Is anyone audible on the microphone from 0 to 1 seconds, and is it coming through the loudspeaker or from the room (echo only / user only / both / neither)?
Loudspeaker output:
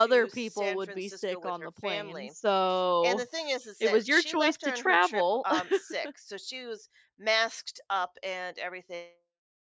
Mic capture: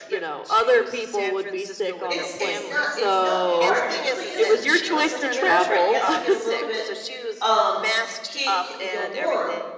echo only